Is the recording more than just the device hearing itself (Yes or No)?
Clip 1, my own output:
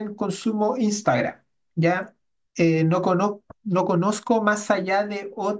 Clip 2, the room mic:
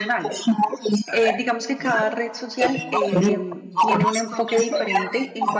Yes